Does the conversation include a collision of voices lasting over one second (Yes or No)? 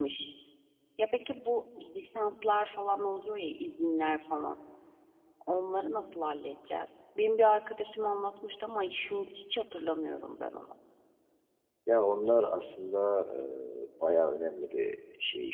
No